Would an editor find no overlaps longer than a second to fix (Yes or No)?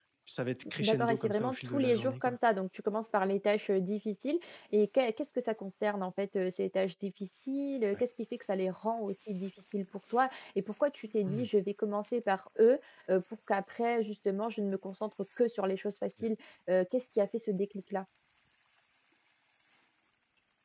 No